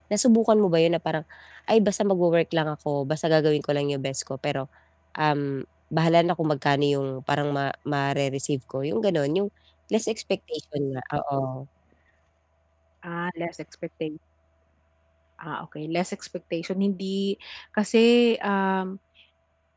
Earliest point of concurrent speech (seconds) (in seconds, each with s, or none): none